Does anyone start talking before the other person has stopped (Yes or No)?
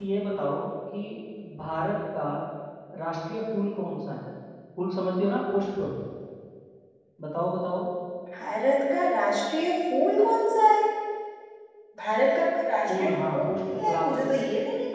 Yes